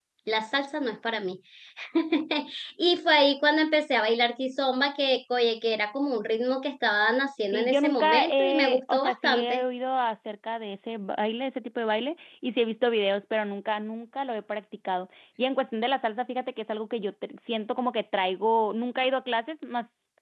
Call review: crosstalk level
present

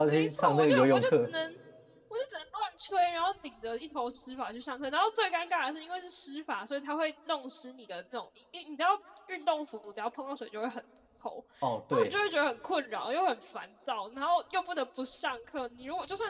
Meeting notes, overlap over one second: present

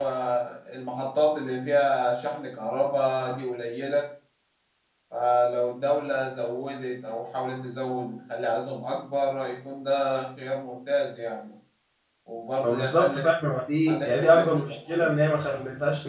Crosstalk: present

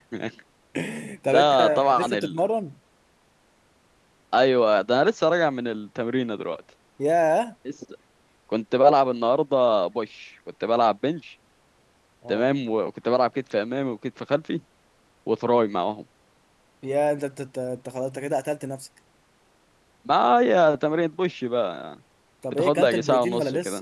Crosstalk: present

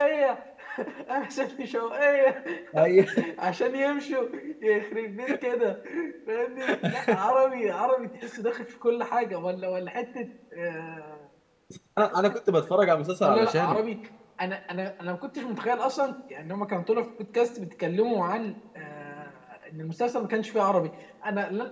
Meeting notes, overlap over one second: none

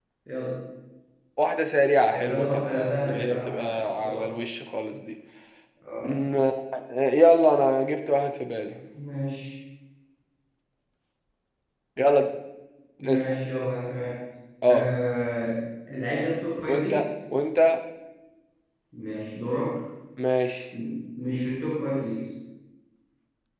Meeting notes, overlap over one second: present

